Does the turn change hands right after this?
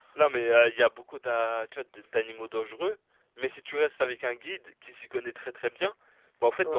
Yes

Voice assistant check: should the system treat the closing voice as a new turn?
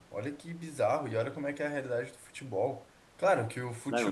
No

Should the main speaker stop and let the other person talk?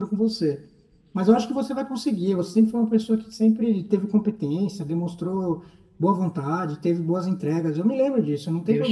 Yes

